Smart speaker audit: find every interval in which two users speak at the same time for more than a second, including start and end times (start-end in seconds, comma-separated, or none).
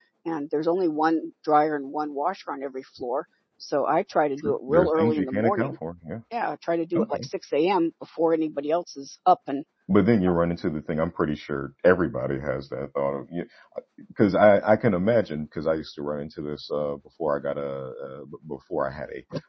4.4-5.8